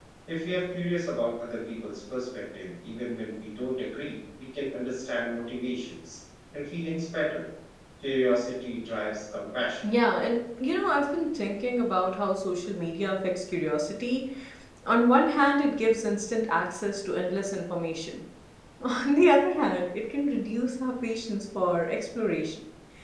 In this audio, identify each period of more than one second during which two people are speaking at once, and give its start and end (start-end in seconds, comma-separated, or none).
none